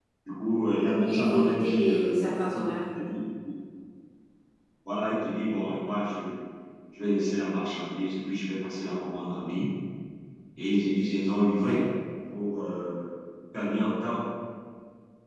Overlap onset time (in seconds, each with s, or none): 1.0 s